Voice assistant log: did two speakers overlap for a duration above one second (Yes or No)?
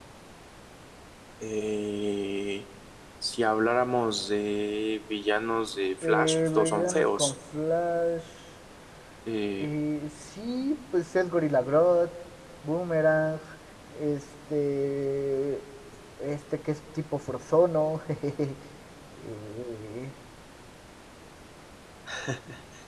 Yes